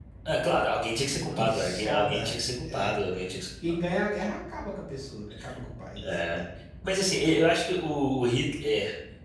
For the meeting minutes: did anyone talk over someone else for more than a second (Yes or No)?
Yes